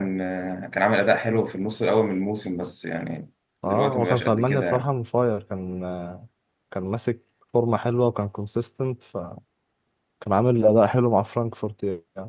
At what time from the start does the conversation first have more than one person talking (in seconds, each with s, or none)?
3.6 s